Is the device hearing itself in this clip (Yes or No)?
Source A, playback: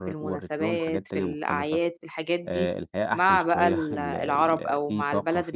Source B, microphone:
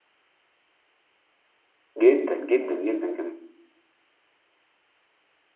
No